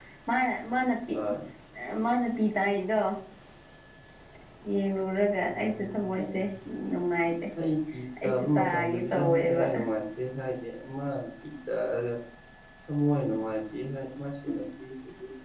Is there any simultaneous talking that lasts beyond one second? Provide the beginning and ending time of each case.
8.2-9.7

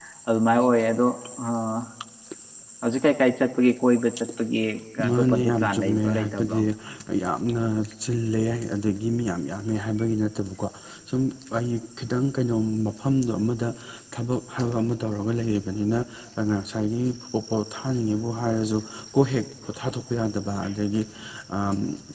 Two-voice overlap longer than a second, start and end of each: 5.1-6.6

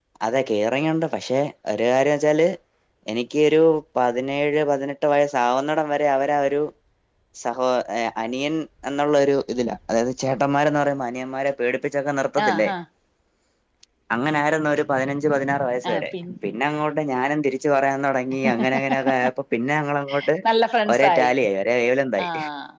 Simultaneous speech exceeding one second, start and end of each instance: none

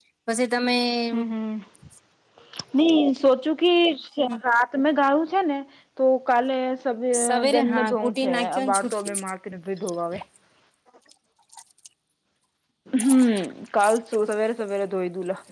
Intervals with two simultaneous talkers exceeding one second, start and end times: 7.2-9.2

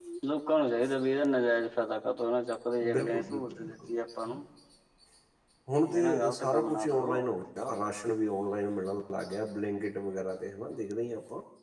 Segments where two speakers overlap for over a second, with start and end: 2.9-4.4, 5.9-7.2

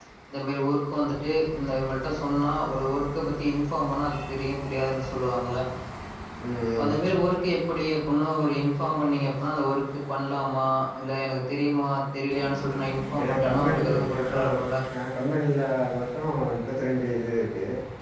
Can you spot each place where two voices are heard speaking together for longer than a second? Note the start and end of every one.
13.2-14.4

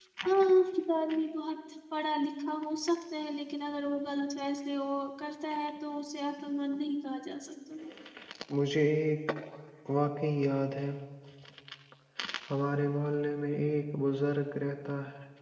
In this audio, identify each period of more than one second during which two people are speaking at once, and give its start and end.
none

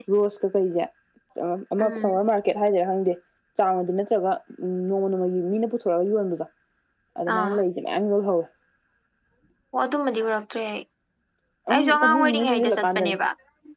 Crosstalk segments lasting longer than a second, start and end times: 11.7-13.2

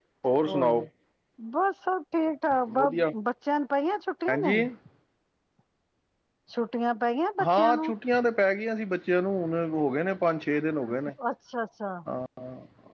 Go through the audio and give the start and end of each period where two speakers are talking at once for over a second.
none

